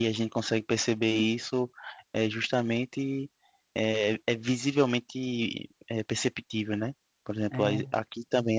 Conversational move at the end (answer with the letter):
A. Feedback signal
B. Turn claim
A